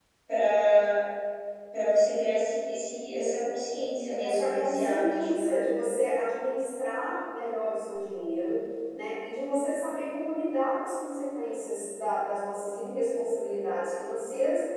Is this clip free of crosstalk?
No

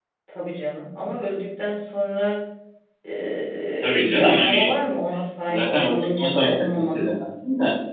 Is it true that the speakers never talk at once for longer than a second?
No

